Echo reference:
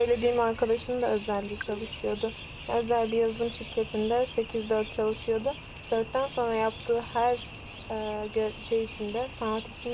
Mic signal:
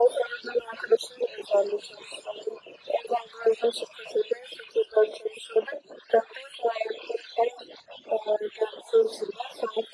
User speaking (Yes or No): No